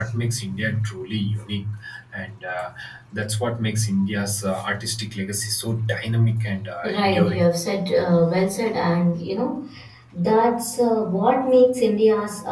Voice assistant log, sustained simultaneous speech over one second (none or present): none